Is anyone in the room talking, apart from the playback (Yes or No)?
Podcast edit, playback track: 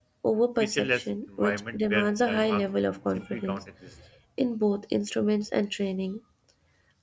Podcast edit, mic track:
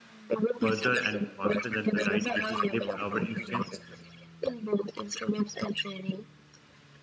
Yes